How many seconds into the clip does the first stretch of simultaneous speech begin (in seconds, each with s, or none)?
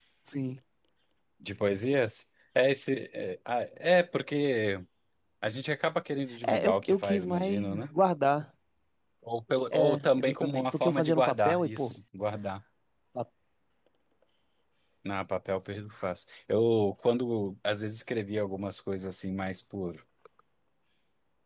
6.5 s